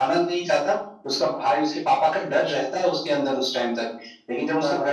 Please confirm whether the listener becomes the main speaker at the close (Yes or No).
No